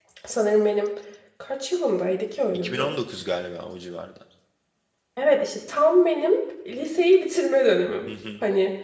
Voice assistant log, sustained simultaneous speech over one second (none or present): none